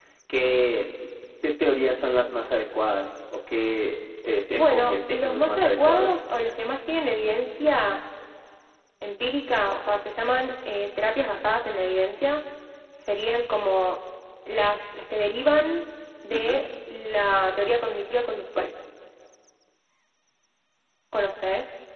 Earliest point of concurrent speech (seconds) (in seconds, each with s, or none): 4.5 s